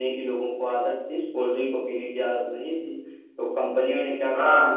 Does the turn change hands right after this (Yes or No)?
Yes